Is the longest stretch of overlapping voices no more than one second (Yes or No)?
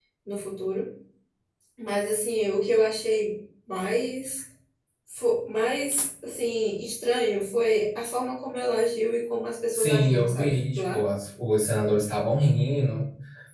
No